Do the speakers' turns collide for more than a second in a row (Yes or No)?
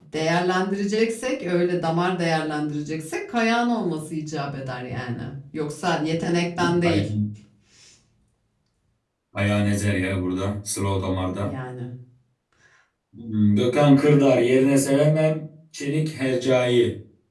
No